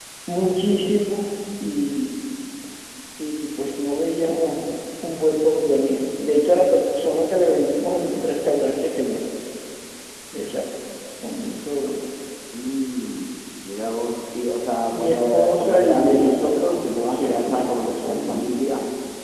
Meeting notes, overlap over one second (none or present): present